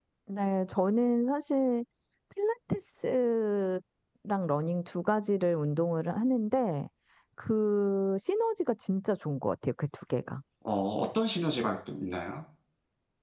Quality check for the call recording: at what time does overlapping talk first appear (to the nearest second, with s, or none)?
none